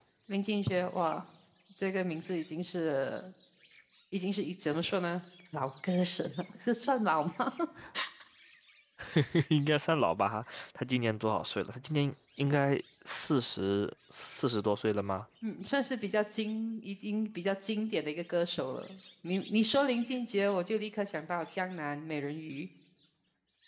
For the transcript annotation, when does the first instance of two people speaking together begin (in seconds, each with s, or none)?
none